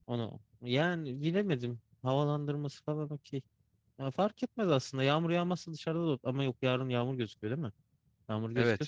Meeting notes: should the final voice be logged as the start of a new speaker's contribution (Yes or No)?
Yes